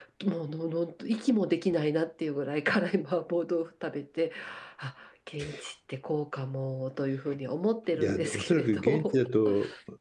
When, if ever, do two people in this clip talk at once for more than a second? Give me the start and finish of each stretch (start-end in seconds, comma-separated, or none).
7.9-9.2